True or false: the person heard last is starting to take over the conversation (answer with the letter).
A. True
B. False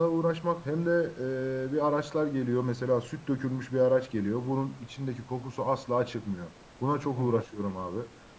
B